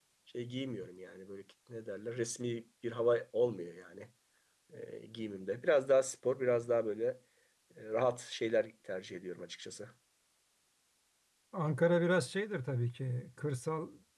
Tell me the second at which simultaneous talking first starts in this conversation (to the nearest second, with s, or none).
none